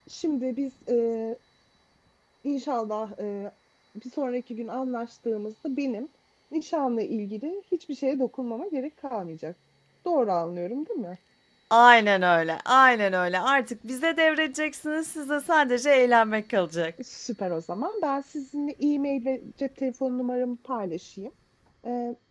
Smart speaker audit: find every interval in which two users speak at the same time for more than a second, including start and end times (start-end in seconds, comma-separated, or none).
none